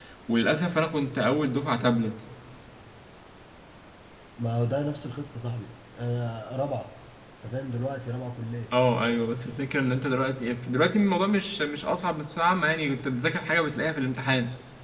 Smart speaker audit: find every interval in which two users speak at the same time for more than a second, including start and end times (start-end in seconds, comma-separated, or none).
none